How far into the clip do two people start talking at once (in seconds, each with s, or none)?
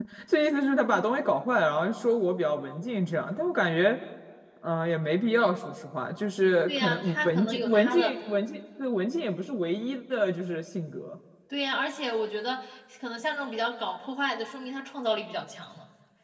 6.7 s